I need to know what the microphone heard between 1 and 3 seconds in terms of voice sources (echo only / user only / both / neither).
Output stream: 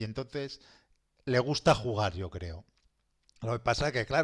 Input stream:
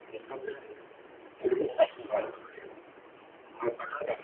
echo only